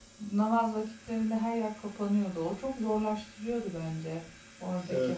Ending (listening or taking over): taking over